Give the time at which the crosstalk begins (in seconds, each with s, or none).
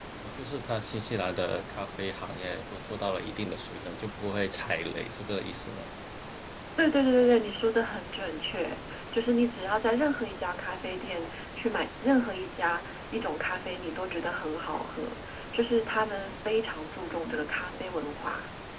none